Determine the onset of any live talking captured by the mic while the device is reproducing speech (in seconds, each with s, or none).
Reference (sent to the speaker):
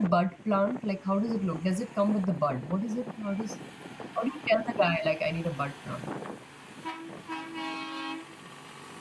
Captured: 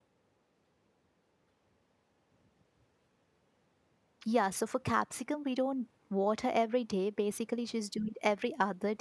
4.3 s